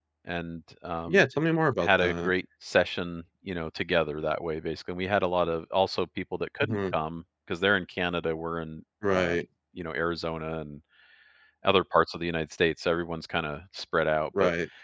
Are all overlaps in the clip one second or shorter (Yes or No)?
Yes